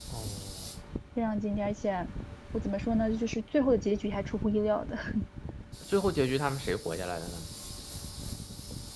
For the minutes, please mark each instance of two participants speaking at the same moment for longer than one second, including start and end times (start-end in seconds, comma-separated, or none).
none